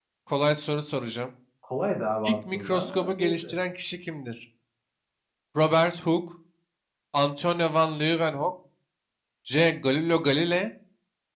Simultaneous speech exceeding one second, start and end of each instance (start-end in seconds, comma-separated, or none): 2.2-3.5